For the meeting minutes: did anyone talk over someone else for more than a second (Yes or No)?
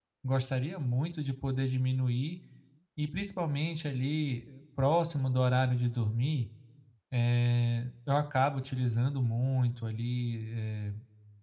No